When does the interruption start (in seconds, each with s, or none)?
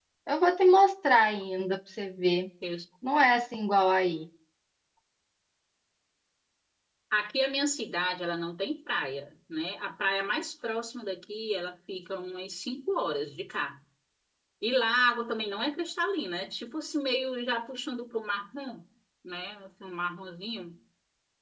none